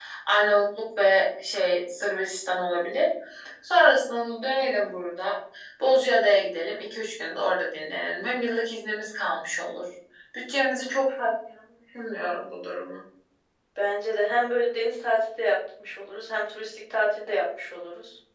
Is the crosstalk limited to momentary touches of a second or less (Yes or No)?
Yes